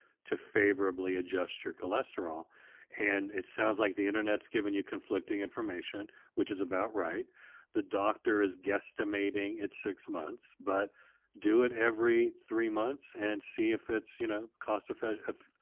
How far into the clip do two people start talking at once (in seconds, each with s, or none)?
none